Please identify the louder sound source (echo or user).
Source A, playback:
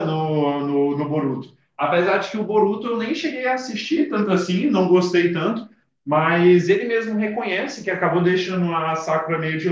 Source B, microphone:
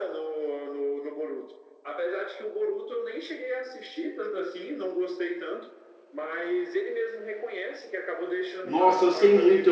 user